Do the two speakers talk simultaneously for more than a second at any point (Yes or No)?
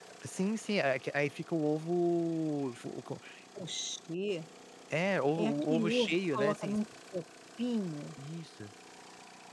Yes